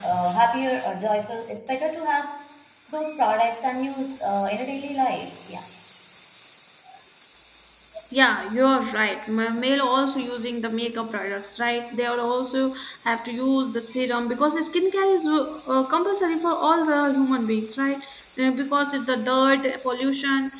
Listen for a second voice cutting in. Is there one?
No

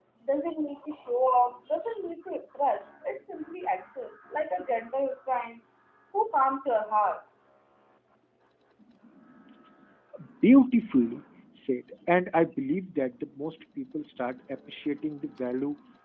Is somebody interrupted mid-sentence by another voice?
No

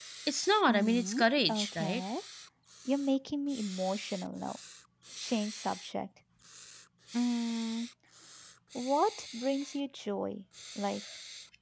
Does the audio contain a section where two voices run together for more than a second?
Yes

